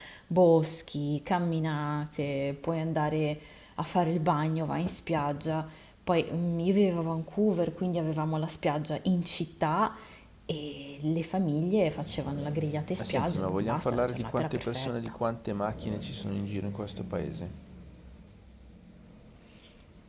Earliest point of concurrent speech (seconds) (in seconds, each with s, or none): 13.0 s